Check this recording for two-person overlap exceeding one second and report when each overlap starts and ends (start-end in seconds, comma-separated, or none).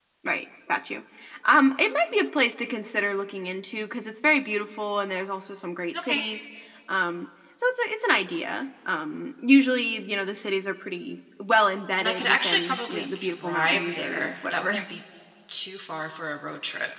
12.0-14.8